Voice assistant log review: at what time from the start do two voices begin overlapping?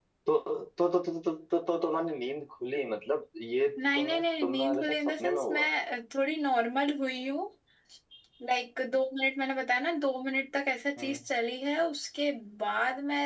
3.8 s

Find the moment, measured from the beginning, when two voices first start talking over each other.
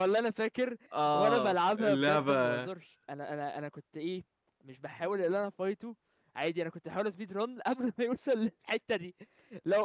1.1 s

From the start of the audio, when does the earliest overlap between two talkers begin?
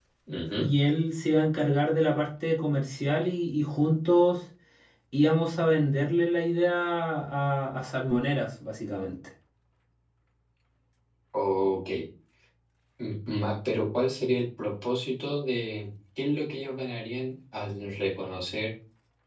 none

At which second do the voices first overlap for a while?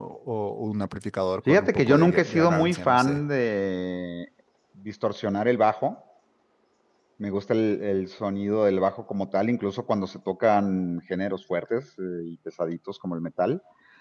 1.5 s

